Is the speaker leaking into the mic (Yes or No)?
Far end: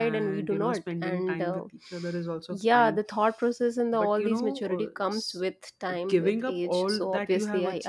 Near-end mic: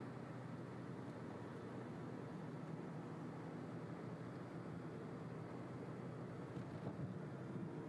No